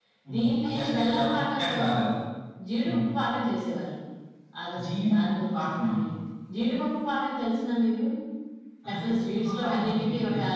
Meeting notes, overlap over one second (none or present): present